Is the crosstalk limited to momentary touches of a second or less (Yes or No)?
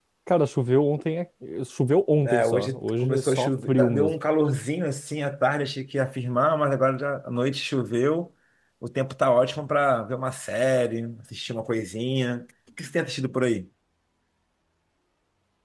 No